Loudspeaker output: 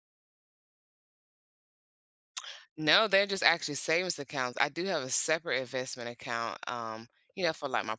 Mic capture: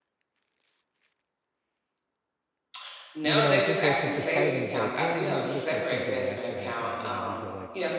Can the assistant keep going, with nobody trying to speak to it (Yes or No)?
No